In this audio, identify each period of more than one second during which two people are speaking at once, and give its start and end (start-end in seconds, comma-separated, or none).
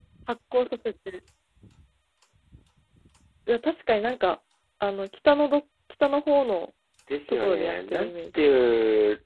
7.3-8.6